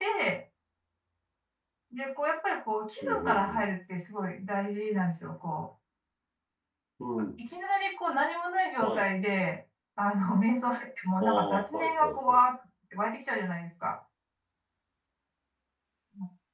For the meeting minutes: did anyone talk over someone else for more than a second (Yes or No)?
Yes